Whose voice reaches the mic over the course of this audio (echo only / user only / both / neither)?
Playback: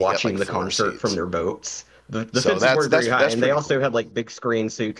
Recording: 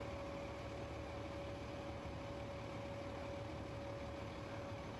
neither